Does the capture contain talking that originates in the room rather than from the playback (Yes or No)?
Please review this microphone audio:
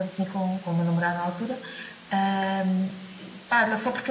No